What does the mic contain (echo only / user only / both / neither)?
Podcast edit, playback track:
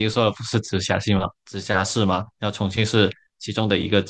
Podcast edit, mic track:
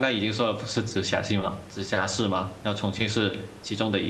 echo only